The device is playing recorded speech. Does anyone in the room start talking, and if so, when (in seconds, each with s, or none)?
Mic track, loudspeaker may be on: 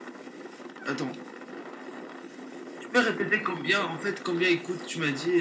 none